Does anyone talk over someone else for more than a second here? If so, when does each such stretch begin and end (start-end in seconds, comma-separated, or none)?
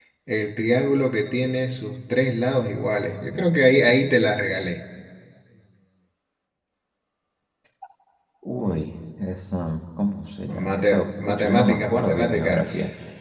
10.7-12.7